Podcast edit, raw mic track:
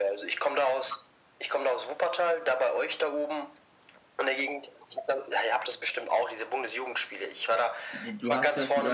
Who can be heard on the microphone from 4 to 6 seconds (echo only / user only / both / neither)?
echo only